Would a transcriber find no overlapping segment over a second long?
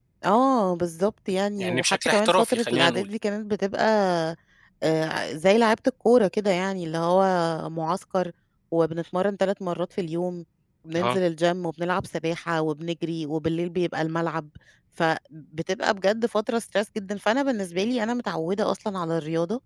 No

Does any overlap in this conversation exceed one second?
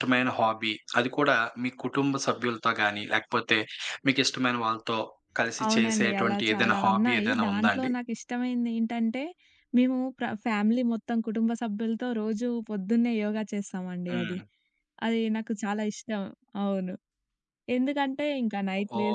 Yes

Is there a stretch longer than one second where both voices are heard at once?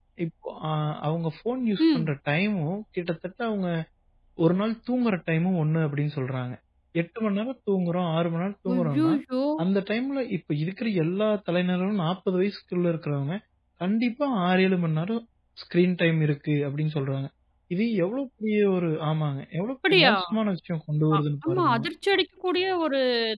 No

